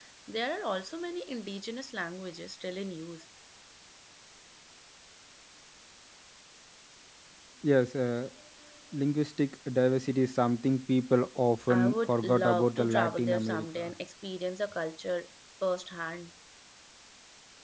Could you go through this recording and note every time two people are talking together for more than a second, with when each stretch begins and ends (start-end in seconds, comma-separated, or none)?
11.7-13.9